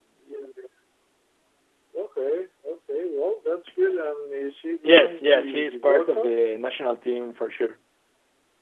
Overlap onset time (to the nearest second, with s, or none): 5 s